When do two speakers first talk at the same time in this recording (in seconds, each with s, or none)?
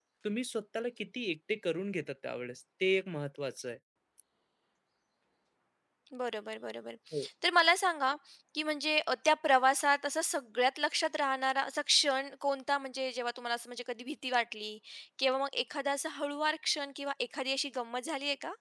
none